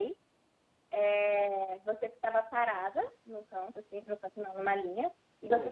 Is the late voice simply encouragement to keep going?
Yes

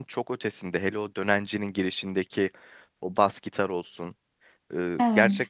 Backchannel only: Yes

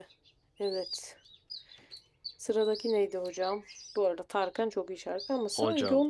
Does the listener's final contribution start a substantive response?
No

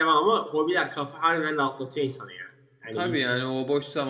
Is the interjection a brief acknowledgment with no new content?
No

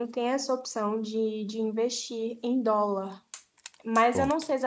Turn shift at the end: No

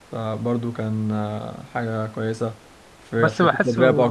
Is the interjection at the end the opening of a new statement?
Yes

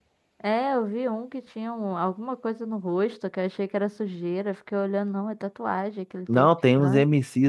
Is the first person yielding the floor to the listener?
Yes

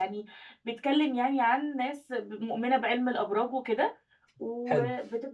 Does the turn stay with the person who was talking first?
Yes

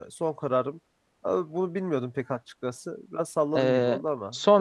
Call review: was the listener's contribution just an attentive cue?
No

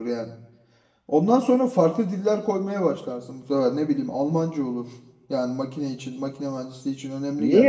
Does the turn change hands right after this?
Yes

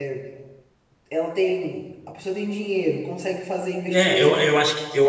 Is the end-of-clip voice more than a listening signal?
Yes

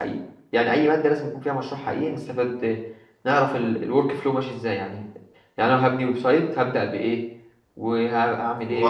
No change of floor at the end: No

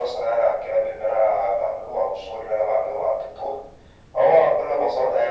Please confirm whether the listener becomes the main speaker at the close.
No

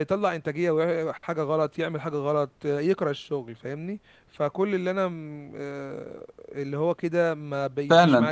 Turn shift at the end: Yes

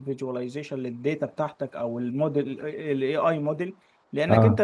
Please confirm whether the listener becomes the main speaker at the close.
No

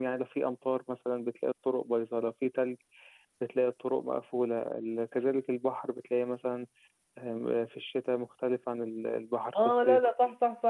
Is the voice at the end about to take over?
Yes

